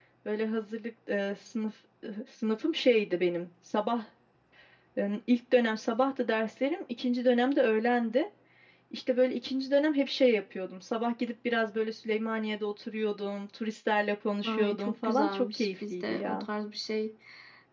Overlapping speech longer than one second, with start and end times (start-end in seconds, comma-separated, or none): 14.4-16.5